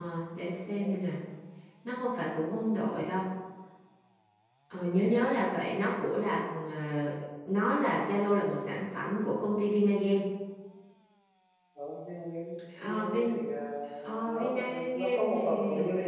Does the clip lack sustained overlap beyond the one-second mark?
No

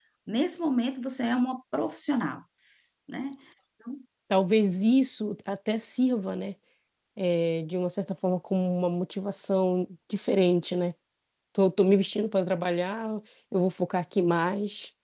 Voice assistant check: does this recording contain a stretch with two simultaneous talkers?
No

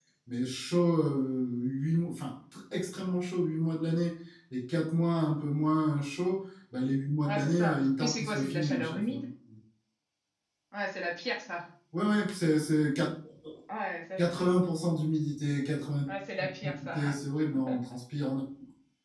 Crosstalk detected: Yes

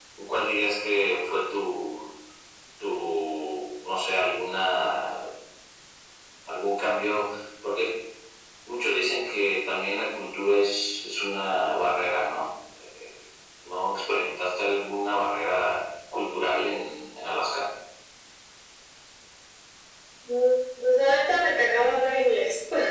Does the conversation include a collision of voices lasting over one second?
No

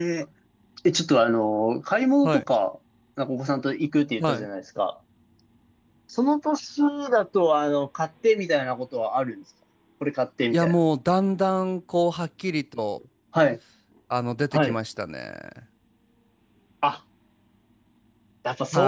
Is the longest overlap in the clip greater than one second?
No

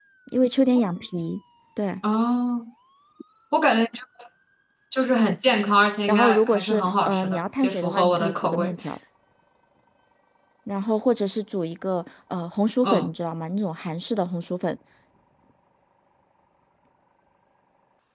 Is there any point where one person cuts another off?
Yes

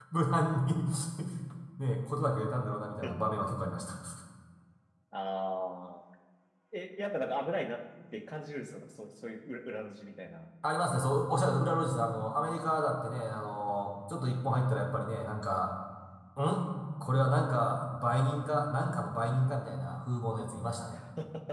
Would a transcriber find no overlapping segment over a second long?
Yes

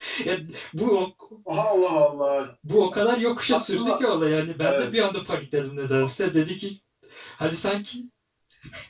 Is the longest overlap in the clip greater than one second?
No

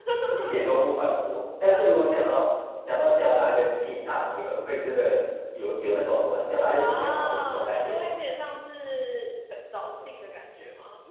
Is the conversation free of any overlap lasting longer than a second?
No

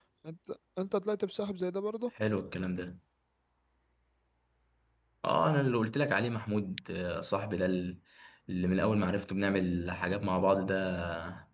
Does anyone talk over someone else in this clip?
No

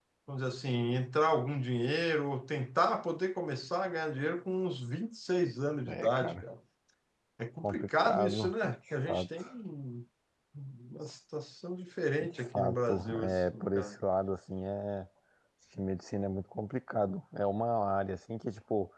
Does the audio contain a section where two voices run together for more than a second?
Yes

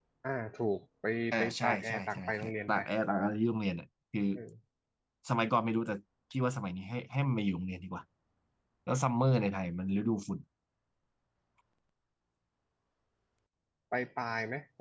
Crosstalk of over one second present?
Yes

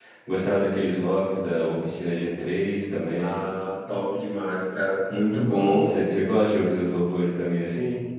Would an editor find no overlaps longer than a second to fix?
Yes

